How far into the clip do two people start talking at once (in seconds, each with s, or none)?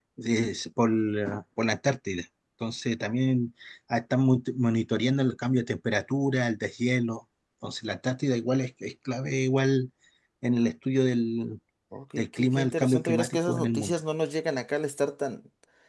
12.2 s